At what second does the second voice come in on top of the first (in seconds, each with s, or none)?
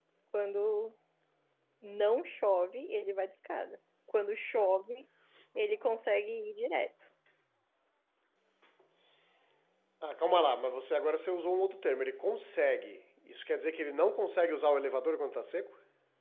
none